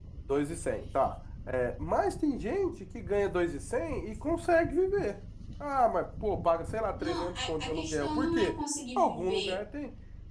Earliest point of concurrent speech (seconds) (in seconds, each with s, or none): 7.0 s